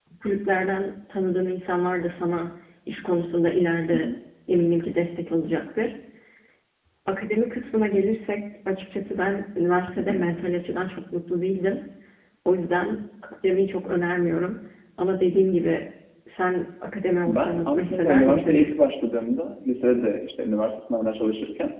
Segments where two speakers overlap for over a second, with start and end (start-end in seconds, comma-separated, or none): 17.3-18.6